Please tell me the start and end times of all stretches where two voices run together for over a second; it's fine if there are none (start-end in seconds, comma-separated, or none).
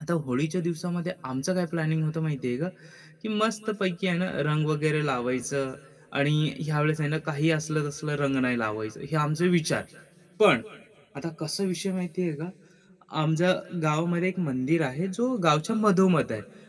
none